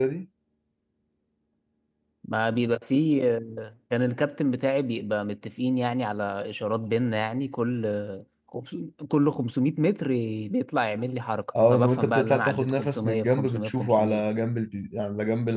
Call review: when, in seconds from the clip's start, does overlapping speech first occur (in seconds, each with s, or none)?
11.6 s